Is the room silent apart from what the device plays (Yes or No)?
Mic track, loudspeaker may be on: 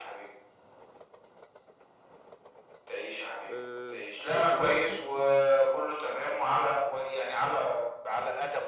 No